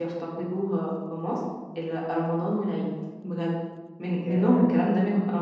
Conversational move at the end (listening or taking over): listening